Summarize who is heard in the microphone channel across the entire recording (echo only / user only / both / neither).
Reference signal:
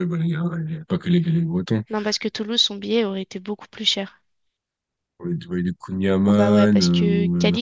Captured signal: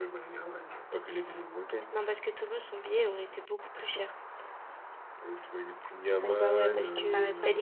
both